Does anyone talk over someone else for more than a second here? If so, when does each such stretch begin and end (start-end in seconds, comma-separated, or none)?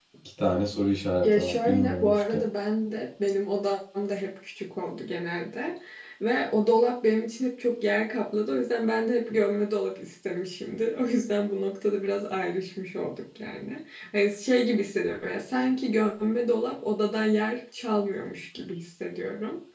1.2-2.4